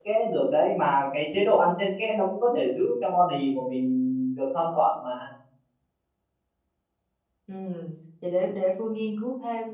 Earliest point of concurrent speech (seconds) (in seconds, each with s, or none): none